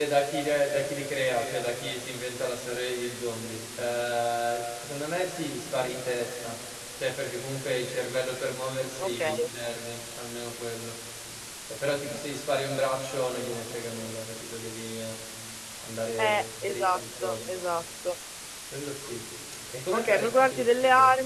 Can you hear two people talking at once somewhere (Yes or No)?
Yes